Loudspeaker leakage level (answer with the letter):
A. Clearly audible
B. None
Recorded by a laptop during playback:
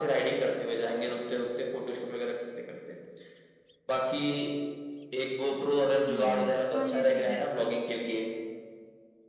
A